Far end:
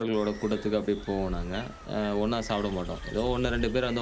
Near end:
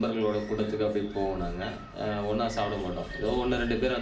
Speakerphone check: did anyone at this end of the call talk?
No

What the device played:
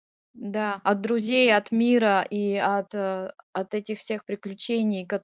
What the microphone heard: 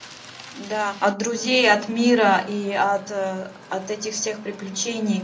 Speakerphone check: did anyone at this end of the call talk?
No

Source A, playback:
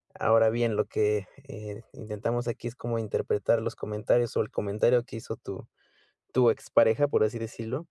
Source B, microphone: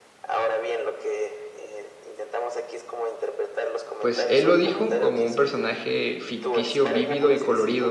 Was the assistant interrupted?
Yes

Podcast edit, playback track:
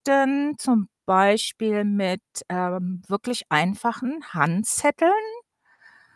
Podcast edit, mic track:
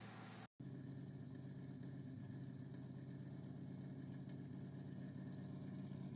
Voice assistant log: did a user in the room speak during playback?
No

